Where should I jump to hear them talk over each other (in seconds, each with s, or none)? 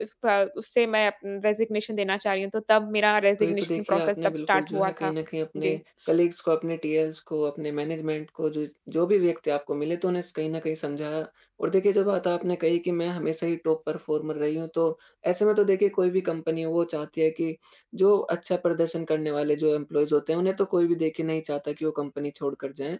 3.4 s